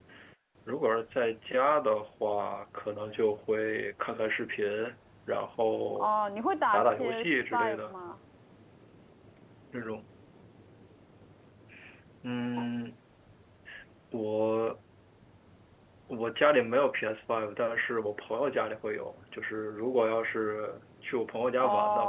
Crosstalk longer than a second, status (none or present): present